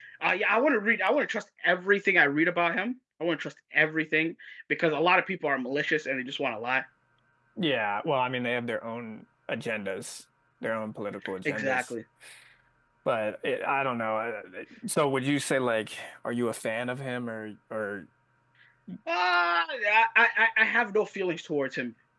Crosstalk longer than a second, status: none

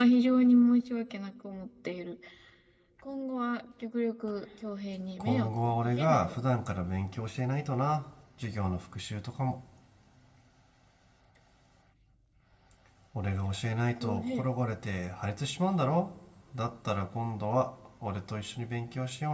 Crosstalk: present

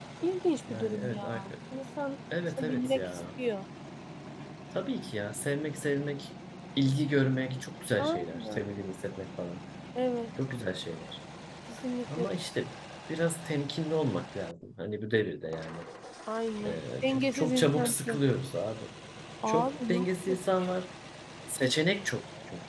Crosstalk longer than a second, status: present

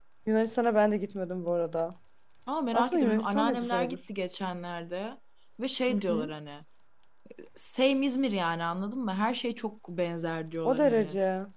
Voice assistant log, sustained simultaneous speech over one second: present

